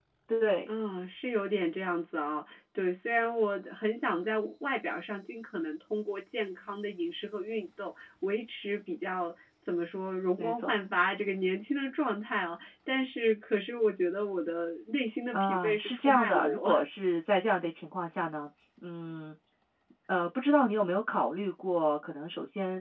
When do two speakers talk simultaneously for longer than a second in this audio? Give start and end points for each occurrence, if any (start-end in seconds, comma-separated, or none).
15.3-16.7